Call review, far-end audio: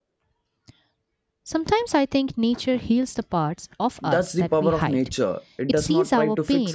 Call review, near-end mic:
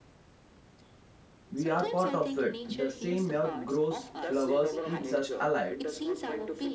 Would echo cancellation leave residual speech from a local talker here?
Yes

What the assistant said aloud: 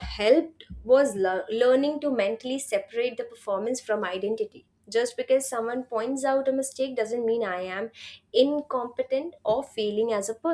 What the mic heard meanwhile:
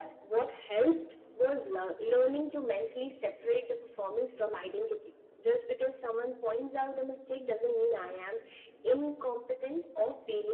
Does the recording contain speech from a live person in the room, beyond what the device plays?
No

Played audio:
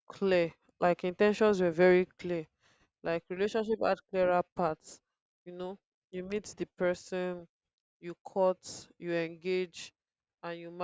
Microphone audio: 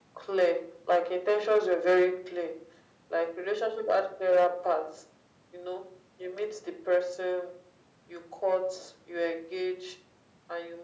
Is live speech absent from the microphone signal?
Yes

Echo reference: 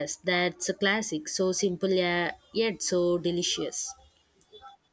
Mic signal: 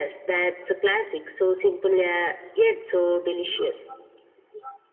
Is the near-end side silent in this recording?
Yes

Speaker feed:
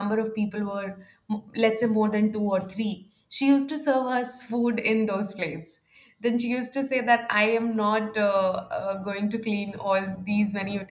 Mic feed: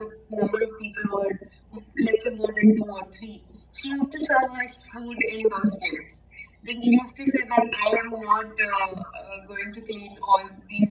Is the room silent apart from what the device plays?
Yes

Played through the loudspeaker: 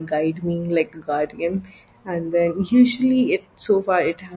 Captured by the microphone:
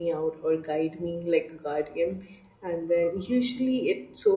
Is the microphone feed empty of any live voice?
Yes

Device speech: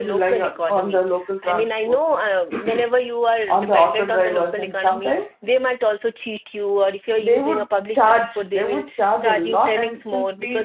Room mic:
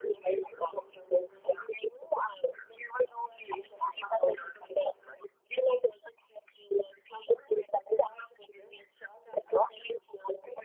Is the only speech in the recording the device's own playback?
Yes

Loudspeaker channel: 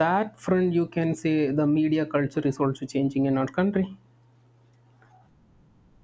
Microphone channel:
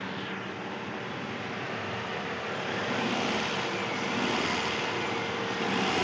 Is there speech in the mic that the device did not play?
No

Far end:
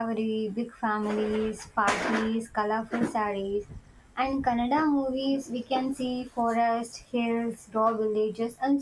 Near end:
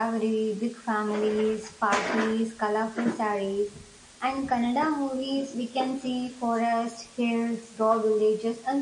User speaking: No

